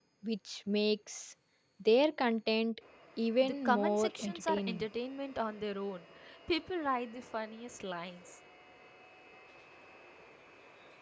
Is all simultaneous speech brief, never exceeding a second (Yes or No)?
No